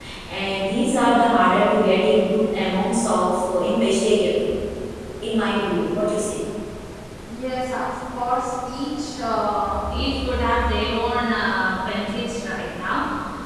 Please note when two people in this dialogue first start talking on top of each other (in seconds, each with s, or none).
none